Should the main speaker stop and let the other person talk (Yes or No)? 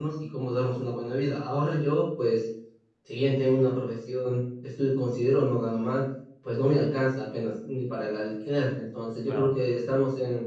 No